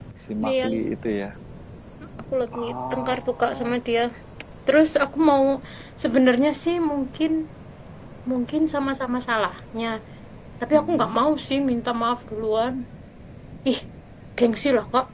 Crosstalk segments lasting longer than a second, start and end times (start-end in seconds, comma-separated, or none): 2.5-3.8